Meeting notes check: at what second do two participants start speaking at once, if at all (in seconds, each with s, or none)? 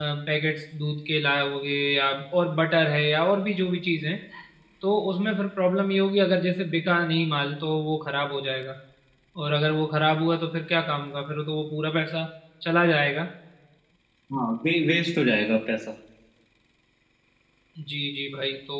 none